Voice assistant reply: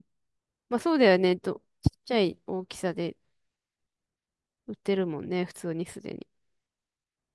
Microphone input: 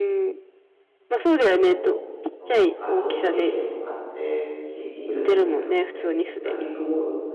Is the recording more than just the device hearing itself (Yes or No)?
Yes